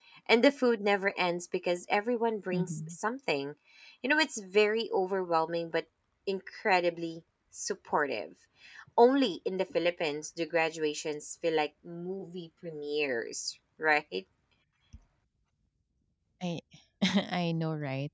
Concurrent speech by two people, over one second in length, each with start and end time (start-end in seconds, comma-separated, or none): none